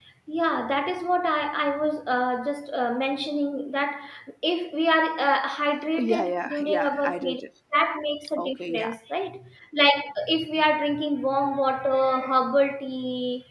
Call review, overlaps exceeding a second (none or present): present